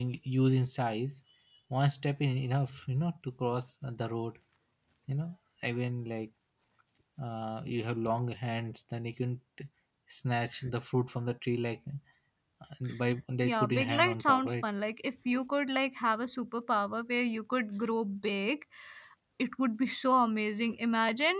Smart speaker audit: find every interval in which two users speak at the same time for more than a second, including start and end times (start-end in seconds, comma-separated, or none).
13.4-14.6